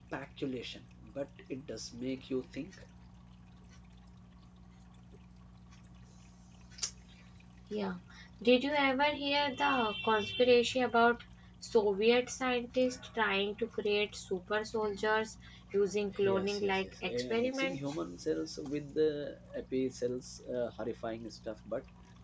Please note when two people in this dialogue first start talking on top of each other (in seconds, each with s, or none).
16.1 s